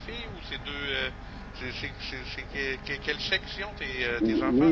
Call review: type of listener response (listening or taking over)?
taking over